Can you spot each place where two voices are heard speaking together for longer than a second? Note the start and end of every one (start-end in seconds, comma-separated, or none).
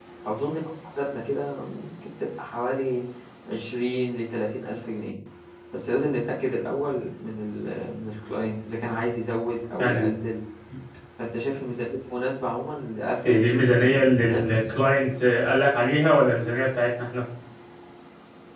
13.2-14.6